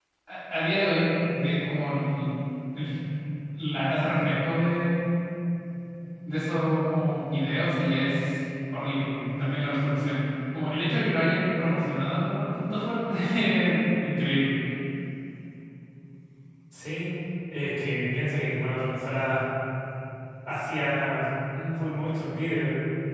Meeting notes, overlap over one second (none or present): none